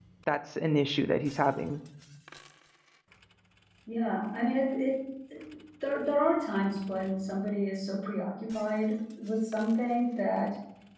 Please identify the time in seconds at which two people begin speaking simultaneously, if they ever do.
none

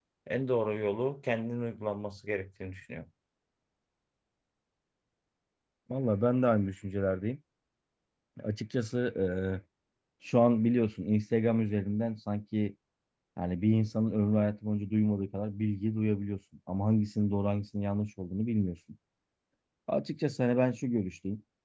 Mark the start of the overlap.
none

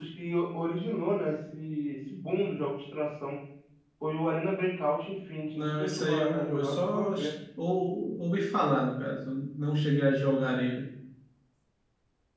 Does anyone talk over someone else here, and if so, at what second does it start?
5.5 s

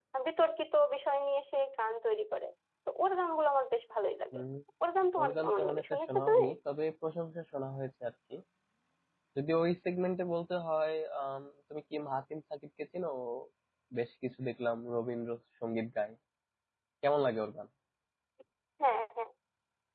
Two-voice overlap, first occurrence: 5.2 s

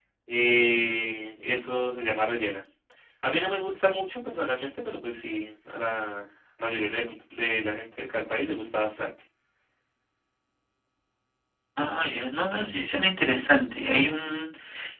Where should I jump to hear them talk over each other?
none

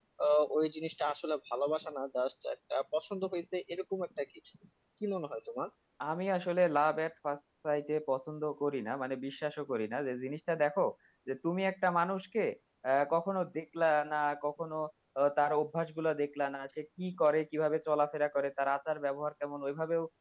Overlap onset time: none

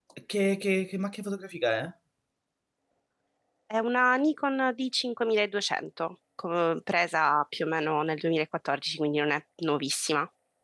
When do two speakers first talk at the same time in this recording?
none

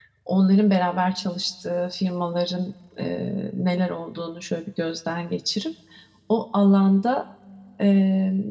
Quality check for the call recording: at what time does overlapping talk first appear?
none

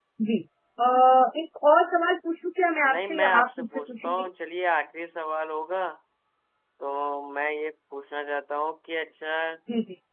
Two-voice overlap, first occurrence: 2.8 s

